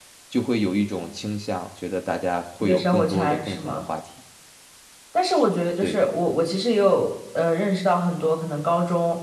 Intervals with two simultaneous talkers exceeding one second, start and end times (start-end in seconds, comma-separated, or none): 2.6-3.8